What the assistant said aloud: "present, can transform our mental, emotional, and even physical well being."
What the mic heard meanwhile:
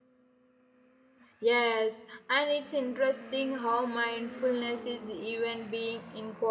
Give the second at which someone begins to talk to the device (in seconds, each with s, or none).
1.4 s